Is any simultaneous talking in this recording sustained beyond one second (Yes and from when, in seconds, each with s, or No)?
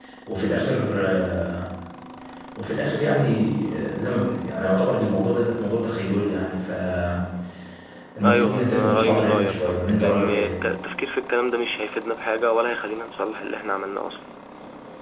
Yes, from 8.5 s